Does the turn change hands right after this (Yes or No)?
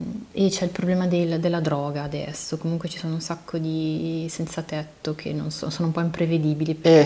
Yes